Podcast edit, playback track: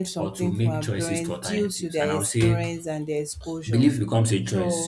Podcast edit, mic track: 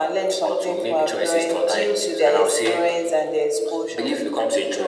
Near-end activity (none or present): none